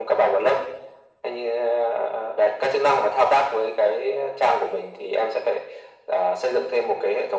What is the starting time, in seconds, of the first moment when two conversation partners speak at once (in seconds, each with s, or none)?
none